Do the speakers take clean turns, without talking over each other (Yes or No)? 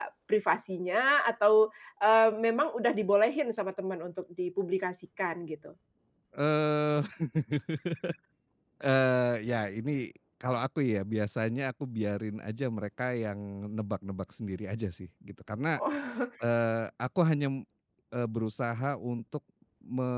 Yes